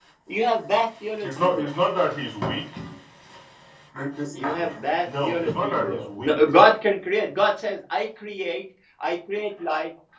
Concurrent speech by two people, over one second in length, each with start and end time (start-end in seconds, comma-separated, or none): 4.4-6.4